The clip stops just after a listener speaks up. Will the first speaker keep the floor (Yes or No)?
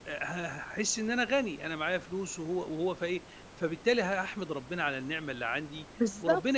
Yes